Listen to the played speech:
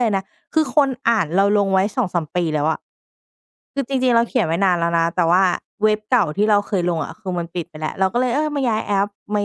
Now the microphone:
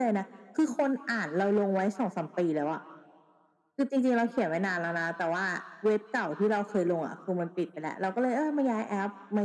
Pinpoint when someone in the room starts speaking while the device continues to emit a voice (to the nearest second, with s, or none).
none